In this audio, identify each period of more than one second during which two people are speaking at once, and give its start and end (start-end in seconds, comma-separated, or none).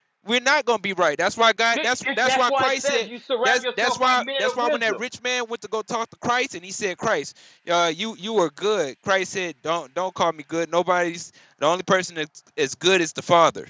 1.7-3.1, 3.5-5.0